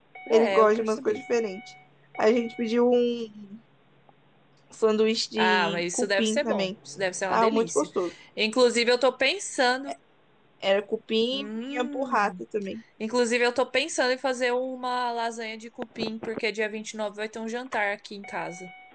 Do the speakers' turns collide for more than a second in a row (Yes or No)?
Yes